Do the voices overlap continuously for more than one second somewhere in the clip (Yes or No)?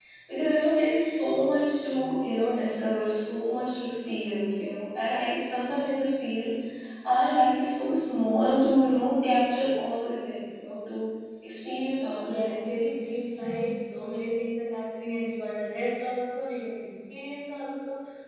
No